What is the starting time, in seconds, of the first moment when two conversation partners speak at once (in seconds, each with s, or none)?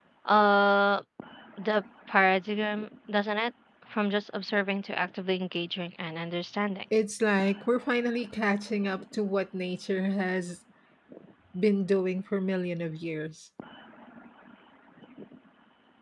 none